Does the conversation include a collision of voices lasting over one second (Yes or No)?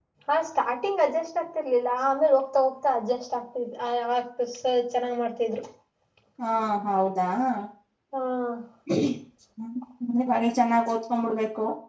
No